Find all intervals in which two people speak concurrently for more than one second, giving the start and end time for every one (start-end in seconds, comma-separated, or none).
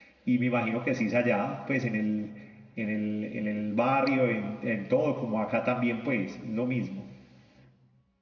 none